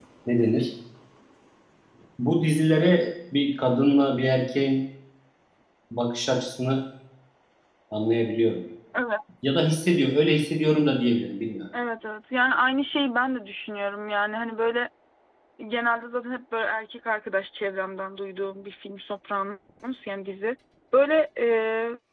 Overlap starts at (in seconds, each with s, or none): none